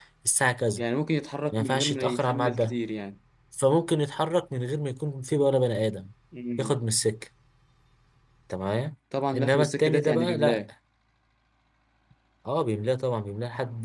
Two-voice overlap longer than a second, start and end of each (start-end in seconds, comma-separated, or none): 1.5-2.8, 9.3-10.6